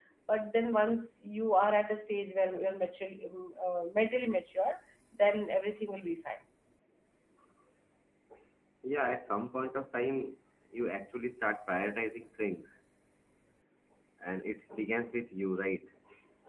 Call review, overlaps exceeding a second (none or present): none